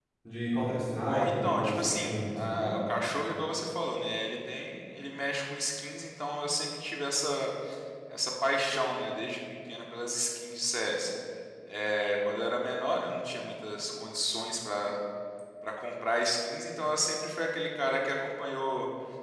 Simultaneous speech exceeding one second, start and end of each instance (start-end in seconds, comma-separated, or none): 1.1-2.8